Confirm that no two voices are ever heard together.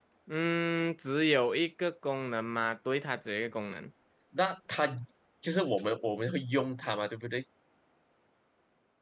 Yes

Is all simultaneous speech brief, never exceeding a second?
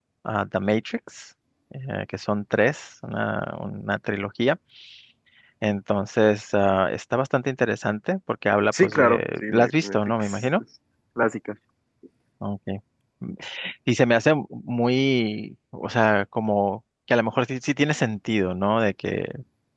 No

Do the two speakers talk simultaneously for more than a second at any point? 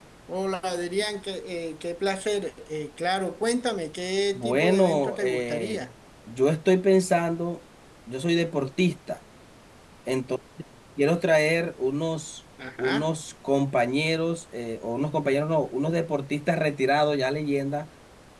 Yes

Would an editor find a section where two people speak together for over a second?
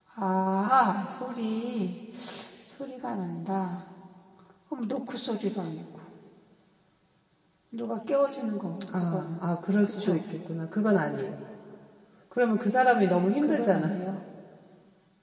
No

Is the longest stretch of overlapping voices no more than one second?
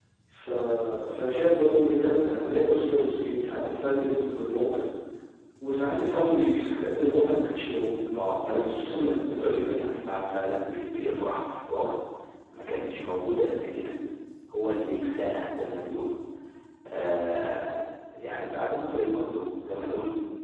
No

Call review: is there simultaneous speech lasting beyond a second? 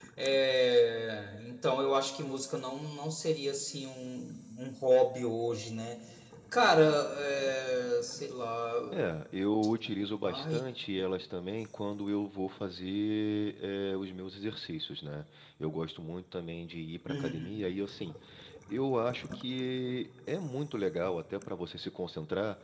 No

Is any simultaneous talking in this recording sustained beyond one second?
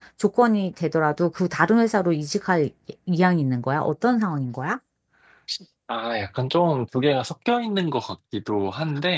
No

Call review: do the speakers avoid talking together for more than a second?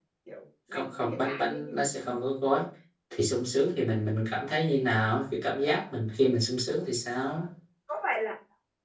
No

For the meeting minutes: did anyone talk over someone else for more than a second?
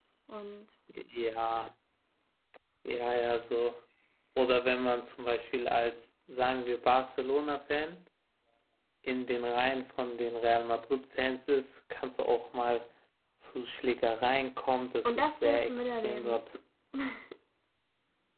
Yes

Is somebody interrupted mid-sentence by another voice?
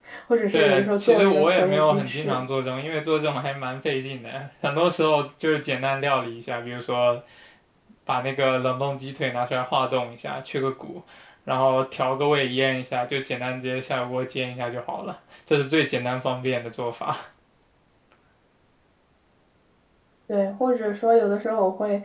Yes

